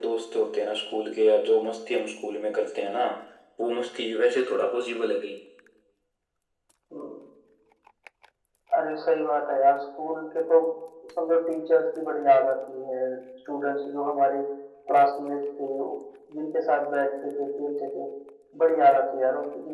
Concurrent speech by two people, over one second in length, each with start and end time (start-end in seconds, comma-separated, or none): none